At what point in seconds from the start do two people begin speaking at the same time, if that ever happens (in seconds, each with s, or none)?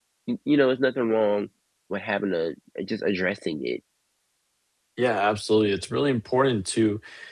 none